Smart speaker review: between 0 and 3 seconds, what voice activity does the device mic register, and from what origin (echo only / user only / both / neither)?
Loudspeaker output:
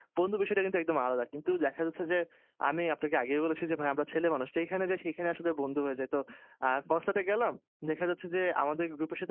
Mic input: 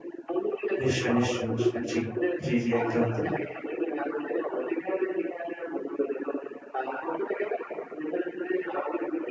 both